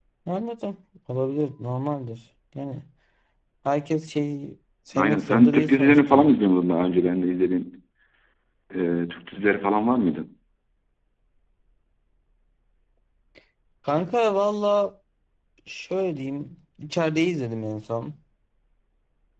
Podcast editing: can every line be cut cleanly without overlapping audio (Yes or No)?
No